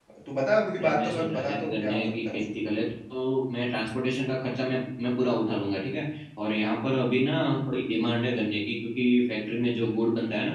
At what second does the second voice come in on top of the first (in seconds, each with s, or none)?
0.8 s